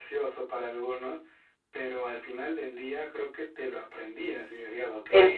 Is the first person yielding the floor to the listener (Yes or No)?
Yes